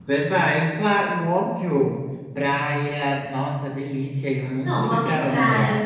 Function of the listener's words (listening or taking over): taking over